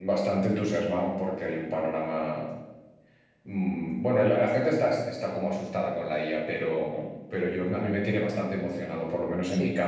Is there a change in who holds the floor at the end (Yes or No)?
No